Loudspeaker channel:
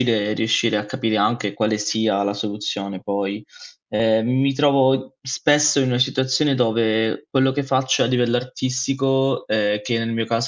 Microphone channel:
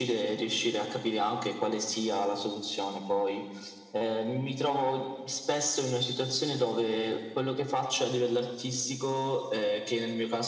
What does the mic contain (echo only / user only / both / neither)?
echo only